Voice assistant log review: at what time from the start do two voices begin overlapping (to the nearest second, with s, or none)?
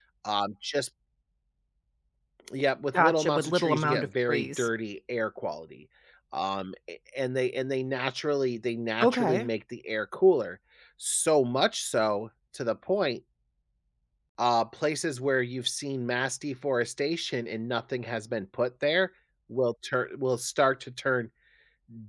3 s